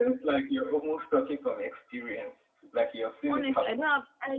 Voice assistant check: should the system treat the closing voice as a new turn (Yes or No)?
Yes